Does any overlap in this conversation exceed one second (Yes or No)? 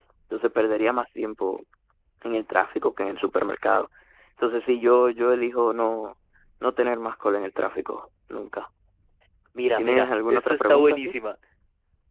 Yes